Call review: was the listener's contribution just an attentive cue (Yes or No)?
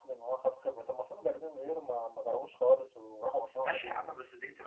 No